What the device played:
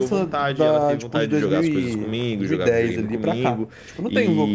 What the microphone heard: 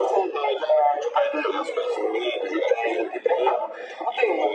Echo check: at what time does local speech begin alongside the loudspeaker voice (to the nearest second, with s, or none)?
none